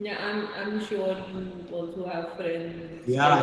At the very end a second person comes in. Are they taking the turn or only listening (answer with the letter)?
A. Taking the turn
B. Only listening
A